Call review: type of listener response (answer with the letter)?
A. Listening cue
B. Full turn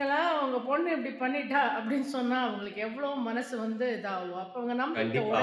B